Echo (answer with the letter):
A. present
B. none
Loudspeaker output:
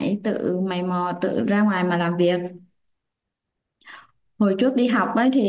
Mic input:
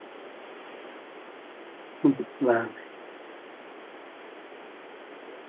B